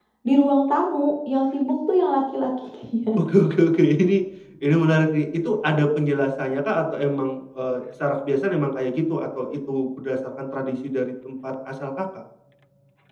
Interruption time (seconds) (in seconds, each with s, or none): none